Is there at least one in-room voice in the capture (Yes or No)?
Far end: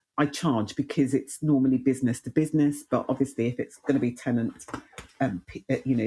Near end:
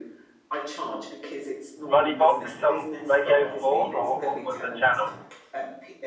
Yes